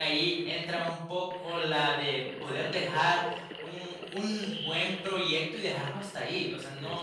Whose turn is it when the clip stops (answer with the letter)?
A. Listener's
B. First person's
B